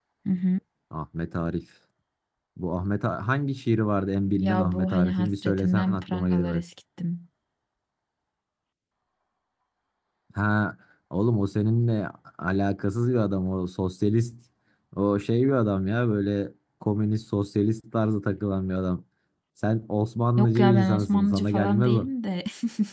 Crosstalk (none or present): present